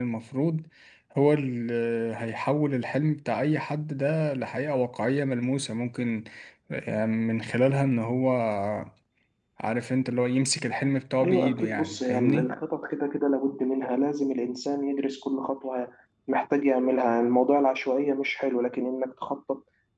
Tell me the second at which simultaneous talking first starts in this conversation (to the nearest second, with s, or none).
11 s